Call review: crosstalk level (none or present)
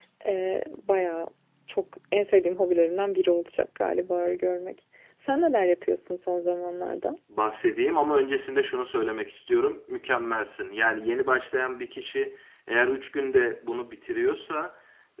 none